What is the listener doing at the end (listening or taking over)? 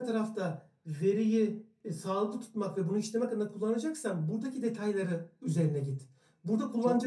listening